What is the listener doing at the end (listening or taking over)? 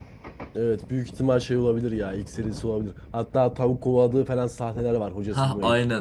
taking over